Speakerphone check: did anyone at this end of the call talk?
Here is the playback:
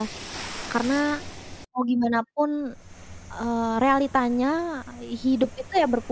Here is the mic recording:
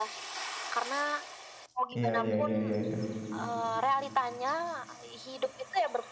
Yes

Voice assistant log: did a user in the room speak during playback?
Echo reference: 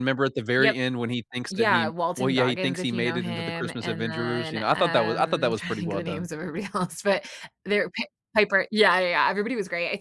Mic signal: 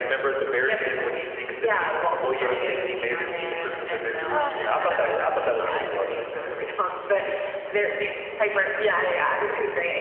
Yes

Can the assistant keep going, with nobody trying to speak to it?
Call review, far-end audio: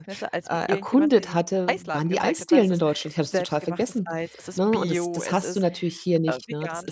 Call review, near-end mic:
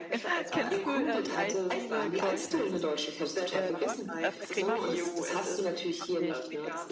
No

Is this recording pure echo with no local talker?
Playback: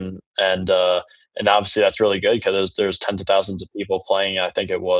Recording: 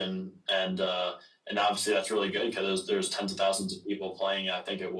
Yes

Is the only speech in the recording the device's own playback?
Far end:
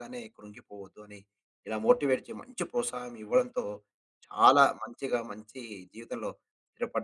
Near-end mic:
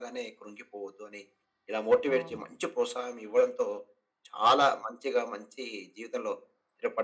No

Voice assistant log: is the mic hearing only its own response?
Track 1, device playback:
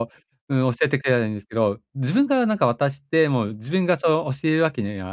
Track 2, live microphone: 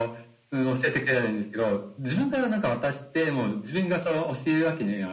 Yes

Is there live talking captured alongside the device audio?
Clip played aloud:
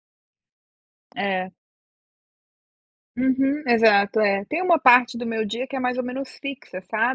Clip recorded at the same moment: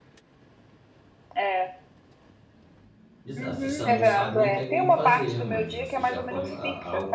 Yes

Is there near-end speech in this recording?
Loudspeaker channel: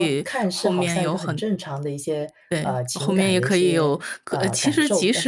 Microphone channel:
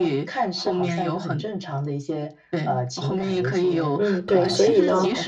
Yes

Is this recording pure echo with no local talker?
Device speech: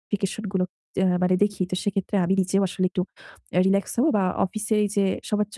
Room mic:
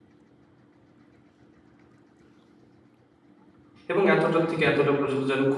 No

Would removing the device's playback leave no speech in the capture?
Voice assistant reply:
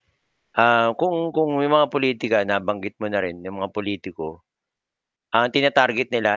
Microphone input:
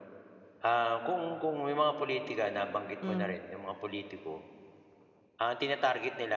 No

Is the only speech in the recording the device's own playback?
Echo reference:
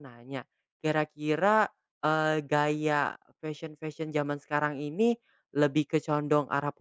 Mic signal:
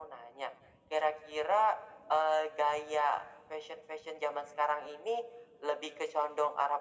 Yes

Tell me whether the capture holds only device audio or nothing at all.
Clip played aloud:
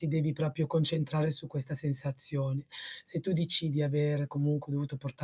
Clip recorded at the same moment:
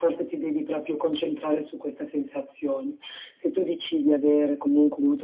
Yes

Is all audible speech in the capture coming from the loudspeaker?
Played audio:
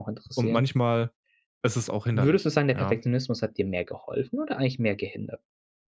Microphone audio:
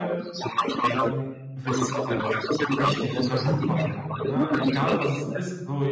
No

